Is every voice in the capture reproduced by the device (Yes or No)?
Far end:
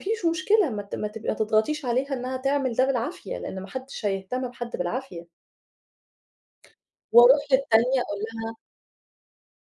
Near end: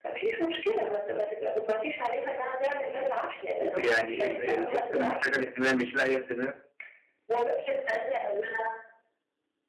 No